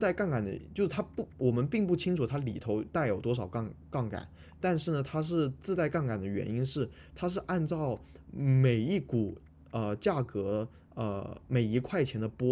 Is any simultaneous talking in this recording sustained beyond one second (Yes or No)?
No